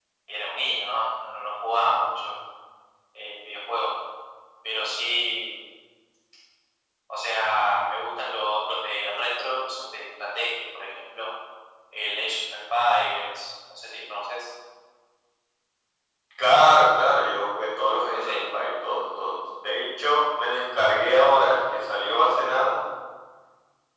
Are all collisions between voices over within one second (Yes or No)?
Yes